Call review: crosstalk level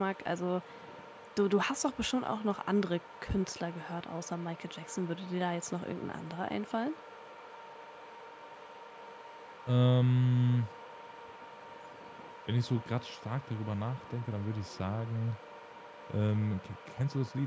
none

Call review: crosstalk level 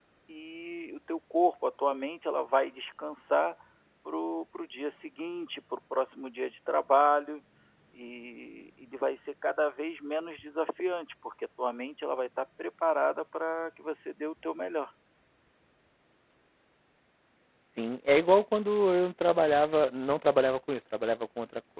none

